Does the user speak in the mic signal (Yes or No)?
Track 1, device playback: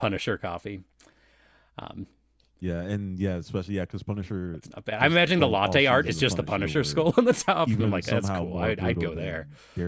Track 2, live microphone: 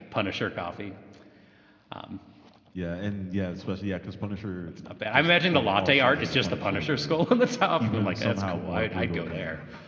No